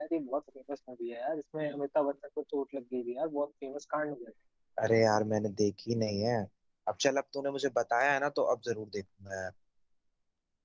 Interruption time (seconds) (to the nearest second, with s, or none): none